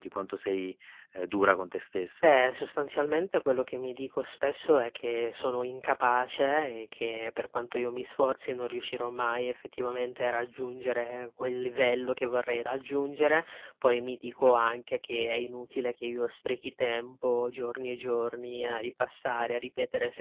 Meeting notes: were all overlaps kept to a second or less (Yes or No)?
Yes